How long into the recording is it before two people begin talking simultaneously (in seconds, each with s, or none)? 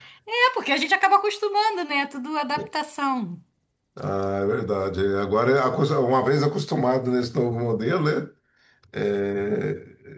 none